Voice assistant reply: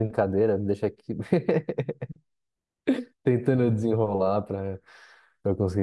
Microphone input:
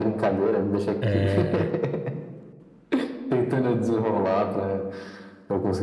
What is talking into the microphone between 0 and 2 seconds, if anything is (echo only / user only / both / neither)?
both